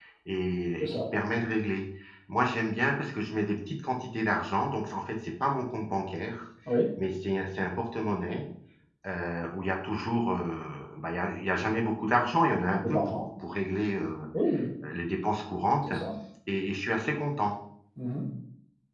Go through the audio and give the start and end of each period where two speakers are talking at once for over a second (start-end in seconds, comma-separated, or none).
none